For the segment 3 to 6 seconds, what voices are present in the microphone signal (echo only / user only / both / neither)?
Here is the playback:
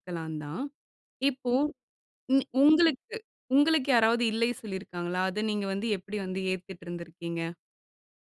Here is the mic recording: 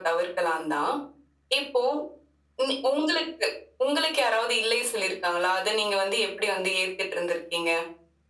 echo only